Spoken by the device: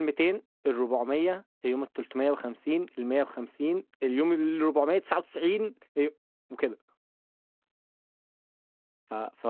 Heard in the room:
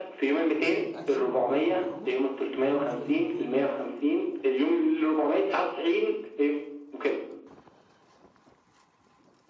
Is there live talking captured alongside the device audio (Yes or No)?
Yes